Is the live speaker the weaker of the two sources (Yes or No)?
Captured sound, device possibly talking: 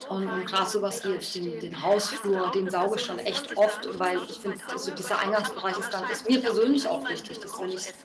No